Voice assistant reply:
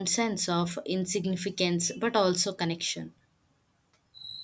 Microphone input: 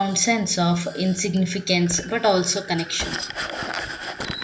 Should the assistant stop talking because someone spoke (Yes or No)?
No